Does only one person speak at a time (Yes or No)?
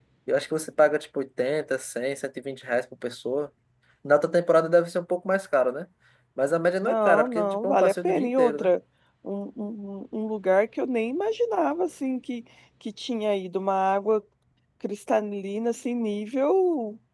No